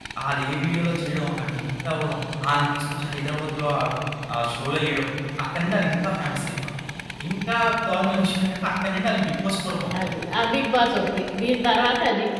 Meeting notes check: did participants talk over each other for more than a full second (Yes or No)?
No